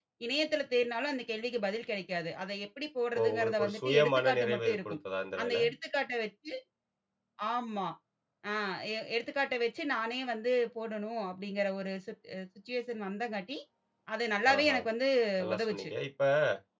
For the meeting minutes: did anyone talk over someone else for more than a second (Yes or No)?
Yes